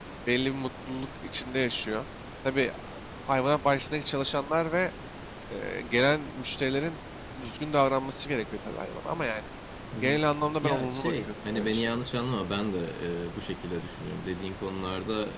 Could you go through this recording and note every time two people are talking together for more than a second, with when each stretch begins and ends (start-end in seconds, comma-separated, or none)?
10.6-12.0